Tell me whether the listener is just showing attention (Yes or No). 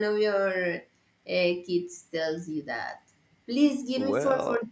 Yes